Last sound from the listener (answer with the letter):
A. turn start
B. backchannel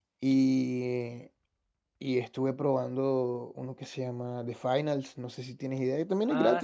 A